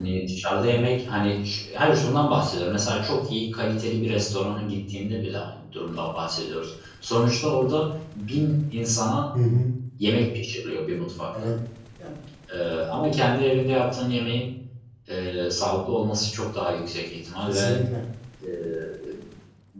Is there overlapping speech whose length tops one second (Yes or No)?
No